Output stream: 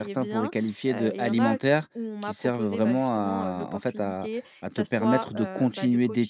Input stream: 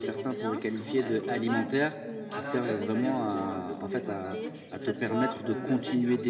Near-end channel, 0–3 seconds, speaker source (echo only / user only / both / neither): both